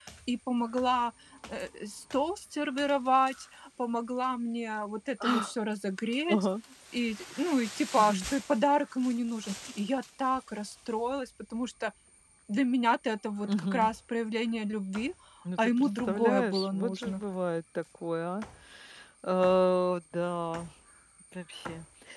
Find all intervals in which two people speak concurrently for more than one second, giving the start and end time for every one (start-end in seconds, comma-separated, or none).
15.6-17.2